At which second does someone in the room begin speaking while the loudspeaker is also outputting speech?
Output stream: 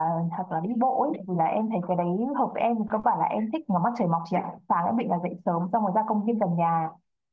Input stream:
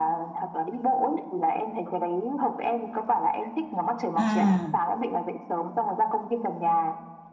4.2 s

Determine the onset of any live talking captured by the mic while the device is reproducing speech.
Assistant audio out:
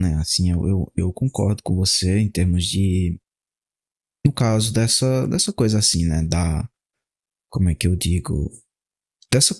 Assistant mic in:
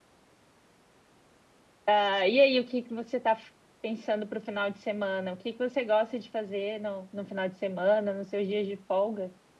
1.9 s

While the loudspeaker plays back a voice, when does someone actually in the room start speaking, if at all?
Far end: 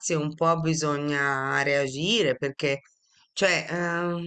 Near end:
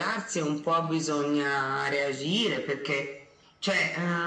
none

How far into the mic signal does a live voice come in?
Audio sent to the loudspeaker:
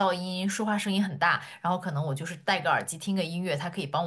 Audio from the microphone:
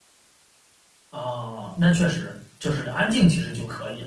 1.1 s

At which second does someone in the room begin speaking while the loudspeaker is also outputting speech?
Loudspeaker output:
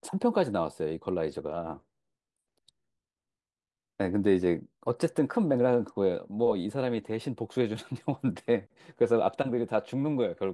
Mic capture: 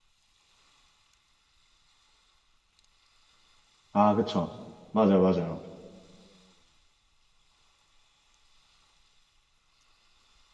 3.9 s

